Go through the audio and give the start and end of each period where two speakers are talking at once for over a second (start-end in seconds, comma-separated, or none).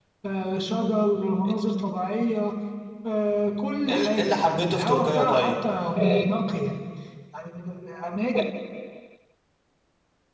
3.9-5.5